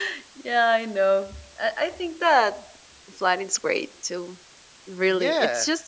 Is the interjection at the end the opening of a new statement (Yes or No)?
No